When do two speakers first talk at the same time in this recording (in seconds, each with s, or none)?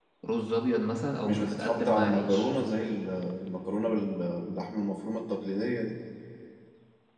1.2 s